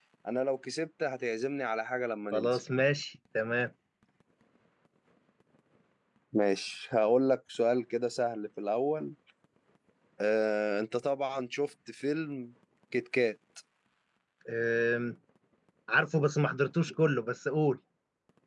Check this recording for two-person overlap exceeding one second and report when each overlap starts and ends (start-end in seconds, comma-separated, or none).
none